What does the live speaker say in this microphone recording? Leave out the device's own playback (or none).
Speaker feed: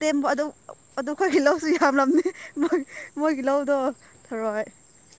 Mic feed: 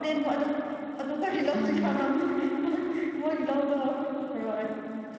ꯎꯝ